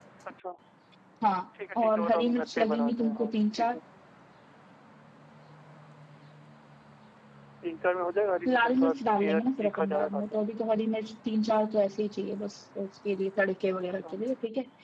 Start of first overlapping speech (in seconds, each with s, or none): 1.8 s